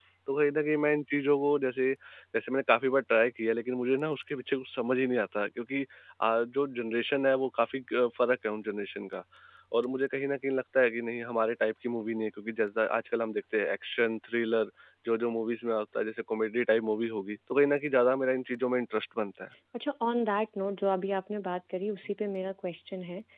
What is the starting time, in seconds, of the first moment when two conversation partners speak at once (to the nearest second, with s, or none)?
none